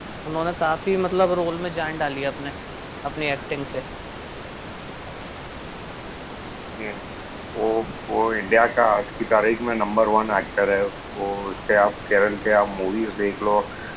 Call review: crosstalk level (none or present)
none